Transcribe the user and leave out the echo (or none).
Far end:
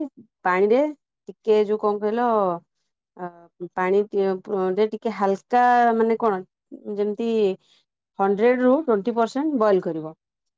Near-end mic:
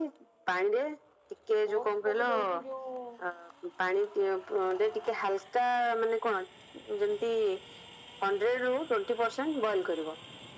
ଓଡ଼ସ ଟାକୁ ଦଉଛି ଯୋଉ